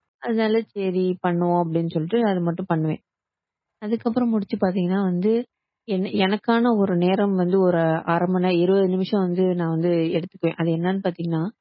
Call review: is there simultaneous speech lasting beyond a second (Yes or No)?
No